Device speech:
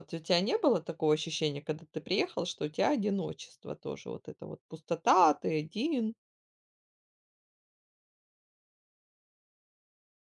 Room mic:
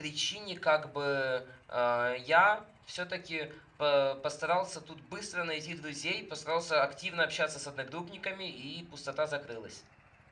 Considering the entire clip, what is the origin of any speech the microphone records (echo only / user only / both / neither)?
user only